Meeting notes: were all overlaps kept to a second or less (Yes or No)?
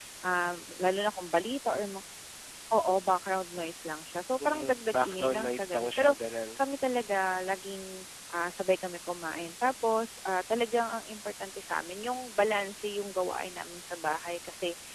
No